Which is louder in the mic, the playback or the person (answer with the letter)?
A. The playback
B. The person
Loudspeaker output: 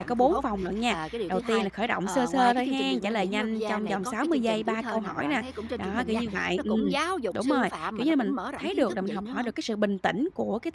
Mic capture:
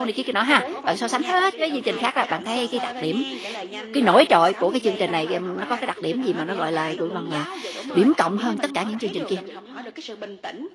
B